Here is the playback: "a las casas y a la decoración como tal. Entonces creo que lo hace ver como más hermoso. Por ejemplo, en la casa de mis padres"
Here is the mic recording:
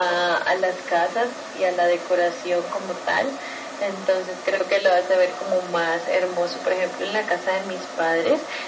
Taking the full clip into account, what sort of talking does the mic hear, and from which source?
echo only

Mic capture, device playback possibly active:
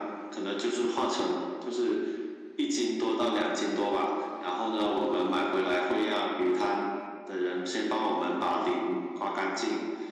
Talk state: echo only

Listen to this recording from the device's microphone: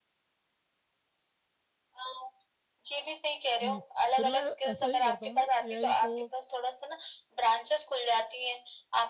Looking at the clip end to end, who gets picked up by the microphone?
both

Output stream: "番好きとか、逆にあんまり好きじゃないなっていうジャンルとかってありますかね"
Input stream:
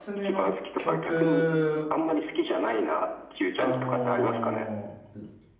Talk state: both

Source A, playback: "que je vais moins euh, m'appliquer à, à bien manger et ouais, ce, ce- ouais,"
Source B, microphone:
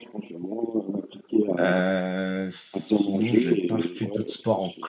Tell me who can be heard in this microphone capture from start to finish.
both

